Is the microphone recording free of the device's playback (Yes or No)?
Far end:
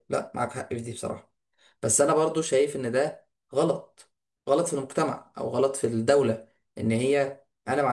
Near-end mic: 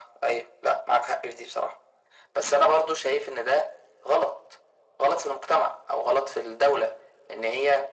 No